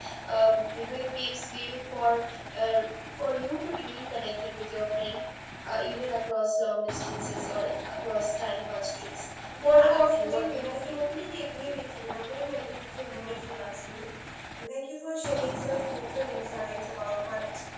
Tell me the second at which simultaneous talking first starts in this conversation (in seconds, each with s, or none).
9.5 s